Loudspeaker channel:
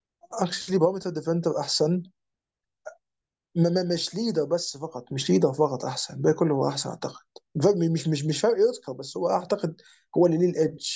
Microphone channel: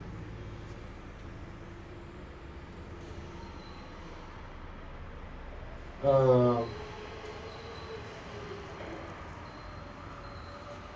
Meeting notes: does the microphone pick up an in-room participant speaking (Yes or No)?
Yes